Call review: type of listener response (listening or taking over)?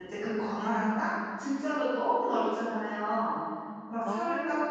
listening